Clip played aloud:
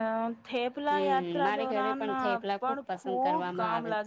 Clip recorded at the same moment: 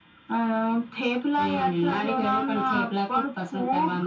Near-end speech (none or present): none